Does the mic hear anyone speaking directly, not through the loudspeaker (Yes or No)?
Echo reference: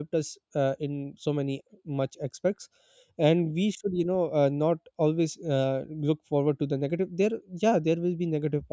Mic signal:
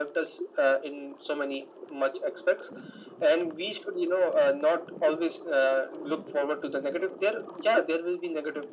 No